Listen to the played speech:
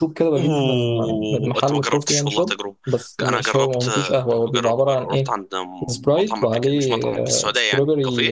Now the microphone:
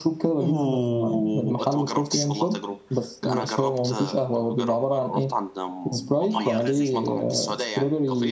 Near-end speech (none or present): present